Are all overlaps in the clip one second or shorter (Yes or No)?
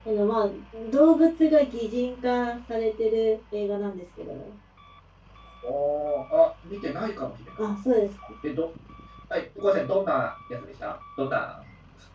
Yes